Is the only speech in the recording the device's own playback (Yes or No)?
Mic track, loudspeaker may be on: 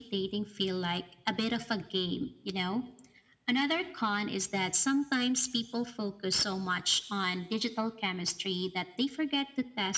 Yes